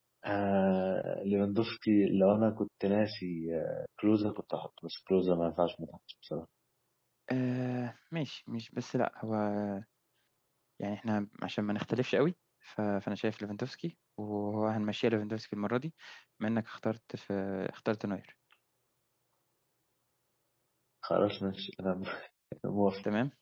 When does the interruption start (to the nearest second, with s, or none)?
none